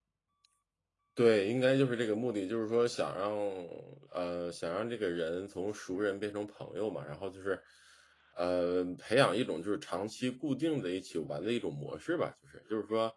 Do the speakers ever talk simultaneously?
No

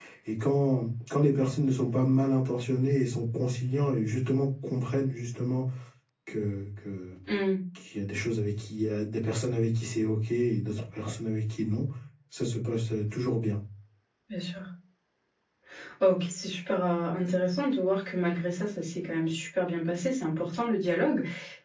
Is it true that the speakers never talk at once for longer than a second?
Yes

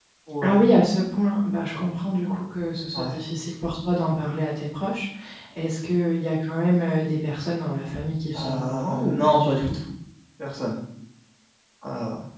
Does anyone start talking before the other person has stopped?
Yes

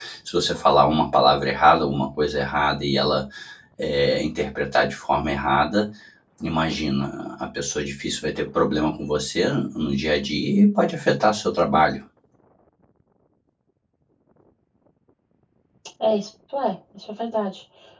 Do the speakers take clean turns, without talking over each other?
Yes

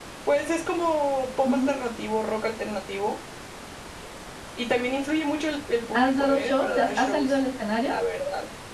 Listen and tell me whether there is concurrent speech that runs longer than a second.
Yes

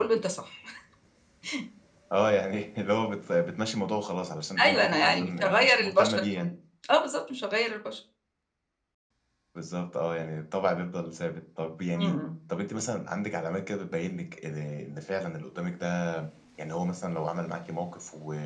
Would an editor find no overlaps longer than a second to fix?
No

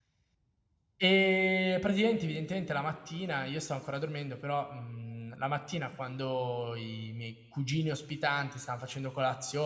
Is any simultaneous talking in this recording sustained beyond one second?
No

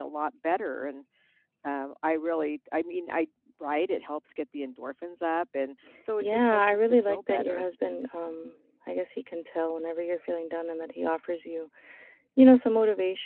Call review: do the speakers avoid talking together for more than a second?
No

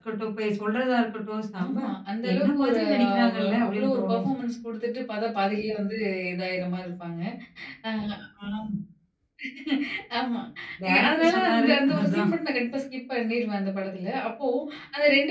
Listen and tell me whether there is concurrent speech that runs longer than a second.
Yes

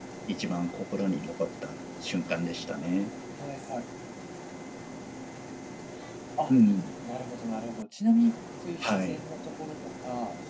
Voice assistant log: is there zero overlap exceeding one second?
Yes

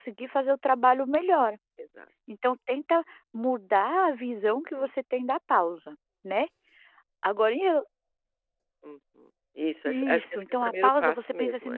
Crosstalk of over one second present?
Yes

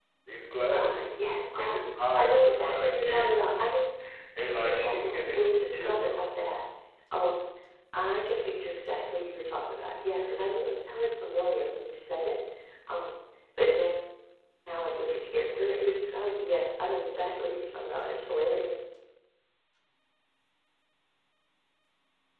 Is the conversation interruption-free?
No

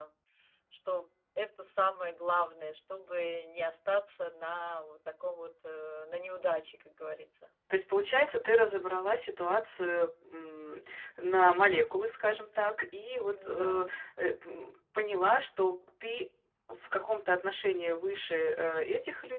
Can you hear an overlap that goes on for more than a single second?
No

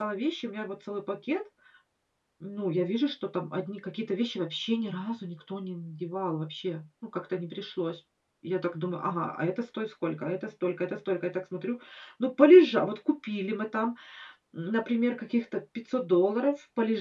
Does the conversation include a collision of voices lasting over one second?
No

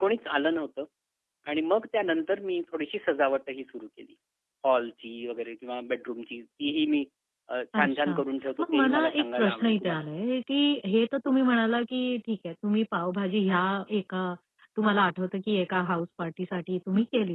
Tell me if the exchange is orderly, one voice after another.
No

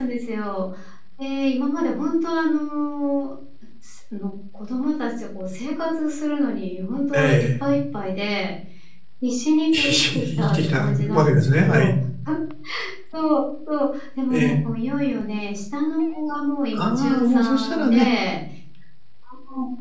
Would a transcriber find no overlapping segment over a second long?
No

